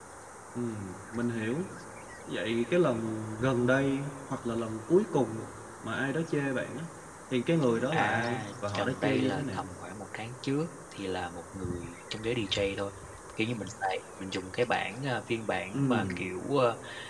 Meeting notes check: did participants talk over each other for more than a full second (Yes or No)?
Yes